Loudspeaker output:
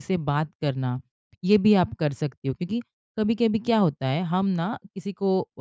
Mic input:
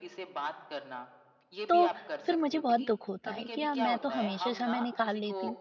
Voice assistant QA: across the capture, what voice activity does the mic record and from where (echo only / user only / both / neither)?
both